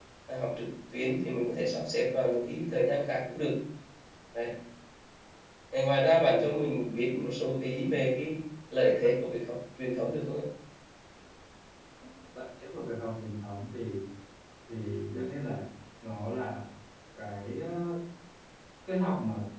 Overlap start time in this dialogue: none

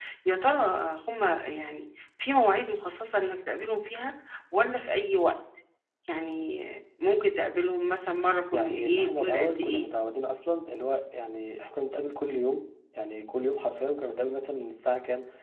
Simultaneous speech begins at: 9 s

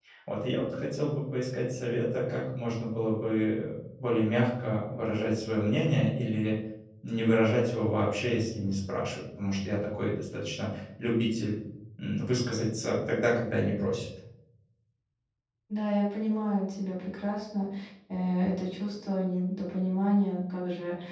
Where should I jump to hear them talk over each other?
none

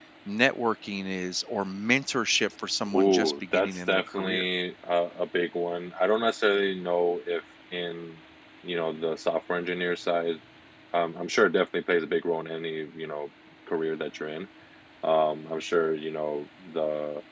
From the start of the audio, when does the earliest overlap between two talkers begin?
3 s

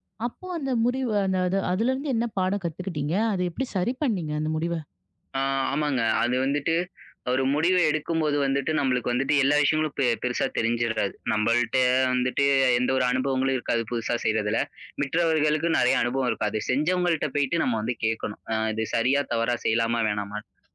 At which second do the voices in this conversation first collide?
none

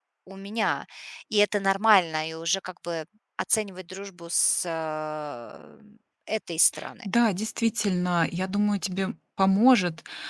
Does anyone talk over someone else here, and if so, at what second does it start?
none

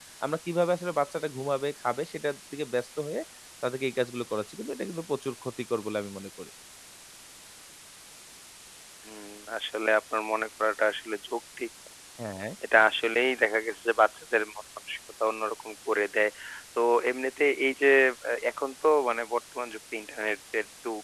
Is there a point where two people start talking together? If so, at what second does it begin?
none

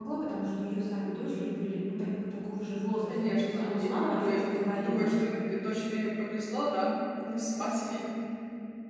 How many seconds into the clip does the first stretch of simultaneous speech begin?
3 s

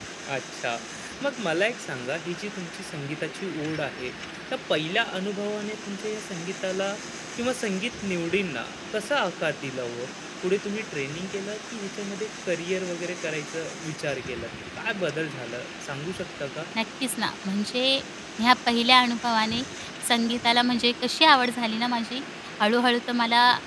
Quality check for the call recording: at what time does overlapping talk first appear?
none

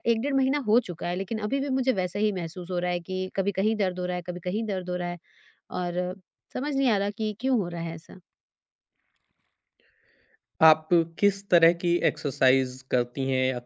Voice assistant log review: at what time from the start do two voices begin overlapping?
none

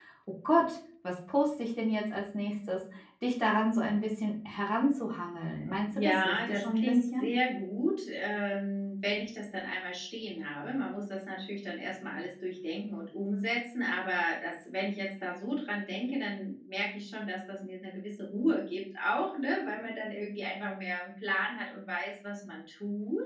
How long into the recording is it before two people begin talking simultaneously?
6 s

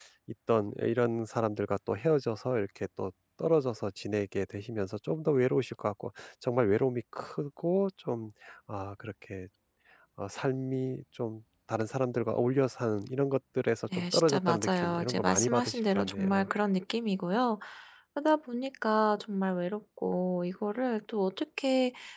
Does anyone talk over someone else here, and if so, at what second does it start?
14 s

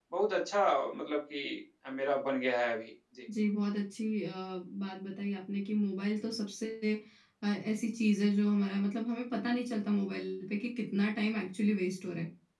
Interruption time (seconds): none

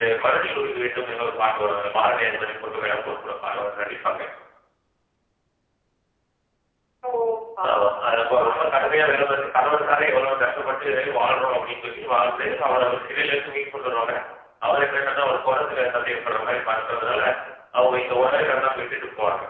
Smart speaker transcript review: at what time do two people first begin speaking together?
8 s

